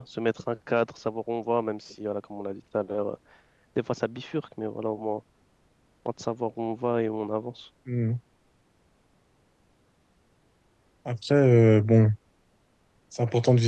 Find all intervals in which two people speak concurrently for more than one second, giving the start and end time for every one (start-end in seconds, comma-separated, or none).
none